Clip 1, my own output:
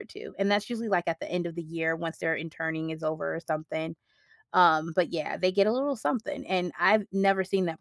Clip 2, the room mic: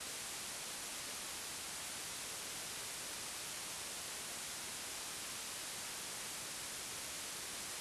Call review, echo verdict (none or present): none